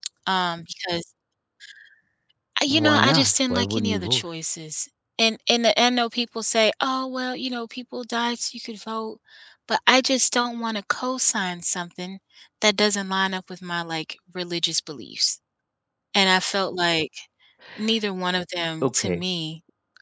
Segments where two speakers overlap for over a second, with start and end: 2.7-4.2

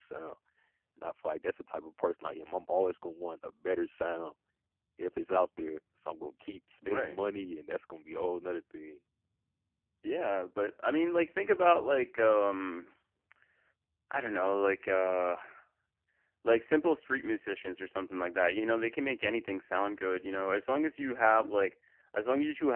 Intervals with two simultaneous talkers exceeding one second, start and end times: none

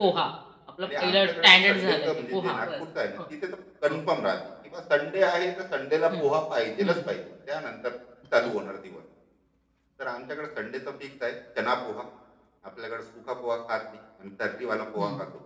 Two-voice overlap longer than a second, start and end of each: 0.8-2.8

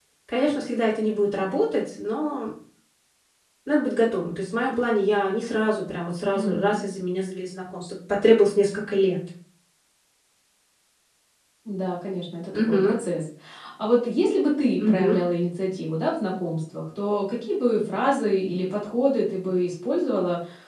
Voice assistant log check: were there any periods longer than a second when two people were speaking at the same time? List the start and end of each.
none

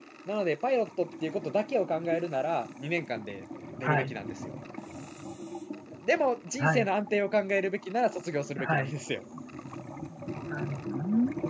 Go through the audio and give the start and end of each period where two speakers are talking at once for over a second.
none

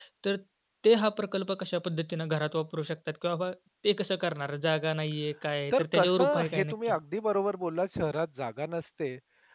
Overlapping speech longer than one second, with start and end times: 5.7-6.9

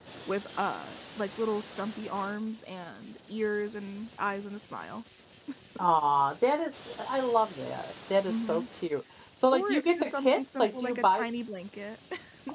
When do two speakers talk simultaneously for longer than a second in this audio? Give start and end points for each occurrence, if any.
9.5-11.3

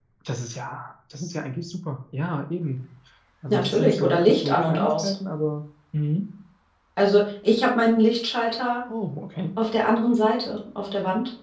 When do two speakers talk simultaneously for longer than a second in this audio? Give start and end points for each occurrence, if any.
3.5-5.1

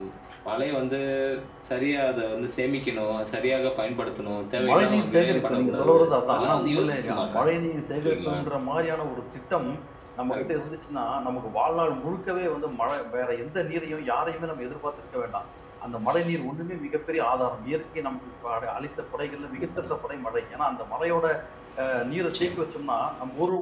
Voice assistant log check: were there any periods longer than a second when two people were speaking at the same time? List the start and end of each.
4.7-7.5

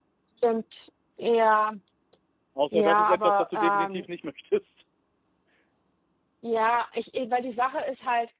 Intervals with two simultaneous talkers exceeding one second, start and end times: 2.7-4.0

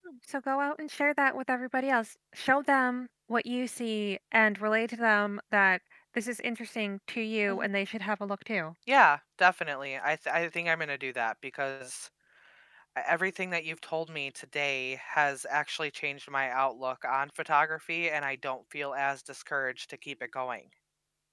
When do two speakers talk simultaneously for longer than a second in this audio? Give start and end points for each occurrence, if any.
none

